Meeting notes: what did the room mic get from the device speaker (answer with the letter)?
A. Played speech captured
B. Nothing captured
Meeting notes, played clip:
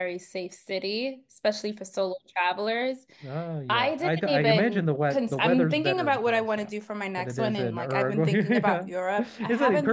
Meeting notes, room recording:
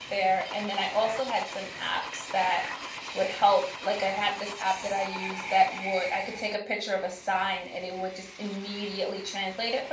B